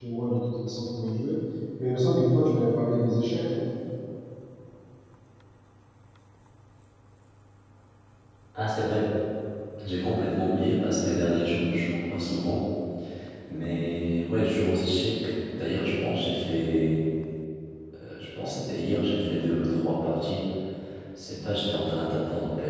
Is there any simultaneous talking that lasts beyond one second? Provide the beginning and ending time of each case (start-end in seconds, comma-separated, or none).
none